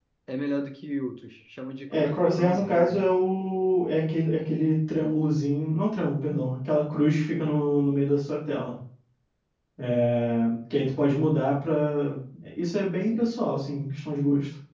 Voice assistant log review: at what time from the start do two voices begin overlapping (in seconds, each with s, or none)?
1.9 s